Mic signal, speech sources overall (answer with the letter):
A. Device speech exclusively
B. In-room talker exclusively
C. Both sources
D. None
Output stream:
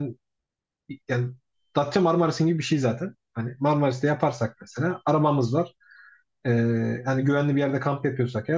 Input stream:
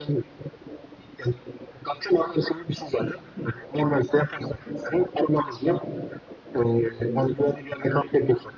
A